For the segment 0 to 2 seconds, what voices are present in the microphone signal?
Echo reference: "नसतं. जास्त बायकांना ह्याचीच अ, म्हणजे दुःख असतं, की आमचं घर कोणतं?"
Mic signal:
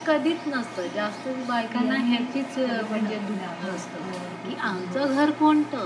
both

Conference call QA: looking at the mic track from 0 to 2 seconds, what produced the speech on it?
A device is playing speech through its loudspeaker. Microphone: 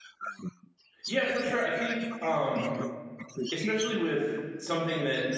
both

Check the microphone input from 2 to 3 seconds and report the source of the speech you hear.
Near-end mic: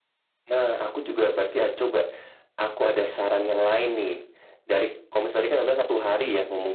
echo only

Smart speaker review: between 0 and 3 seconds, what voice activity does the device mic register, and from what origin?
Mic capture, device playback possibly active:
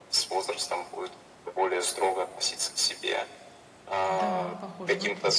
echo only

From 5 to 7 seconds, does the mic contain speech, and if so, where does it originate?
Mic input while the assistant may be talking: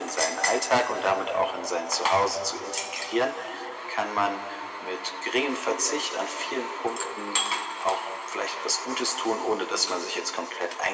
echo only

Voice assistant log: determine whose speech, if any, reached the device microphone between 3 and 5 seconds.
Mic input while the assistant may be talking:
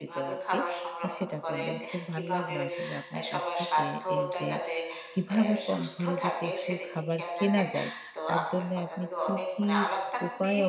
both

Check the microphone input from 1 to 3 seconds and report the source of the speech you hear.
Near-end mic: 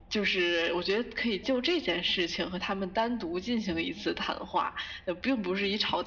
echo only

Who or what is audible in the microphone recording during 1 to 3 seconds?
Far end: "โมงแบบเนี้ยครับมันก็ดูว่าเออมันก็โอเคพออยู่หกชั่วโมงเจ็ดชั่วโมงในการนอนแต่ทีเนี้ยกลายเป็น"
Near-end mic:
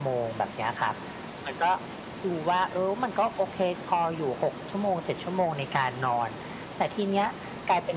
echo only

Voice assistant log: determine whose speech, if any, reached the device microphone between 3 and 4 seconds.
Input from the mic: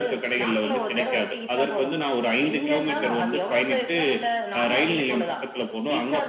both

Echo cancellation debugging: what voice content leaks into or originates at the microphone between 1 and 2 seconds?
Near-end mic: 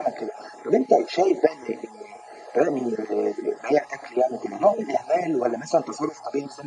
echo only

